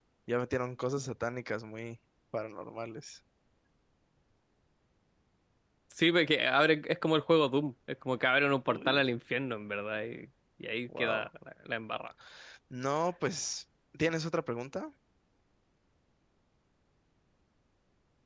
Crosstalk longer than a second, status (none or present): none